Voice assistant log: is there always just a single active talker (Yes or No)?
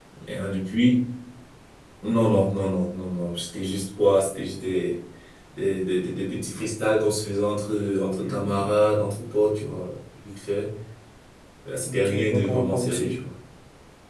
No